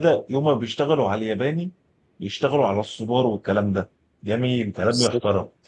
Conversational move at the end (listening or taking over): listening